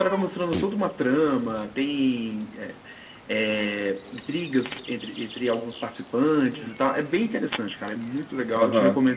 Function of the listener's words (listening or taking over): taking over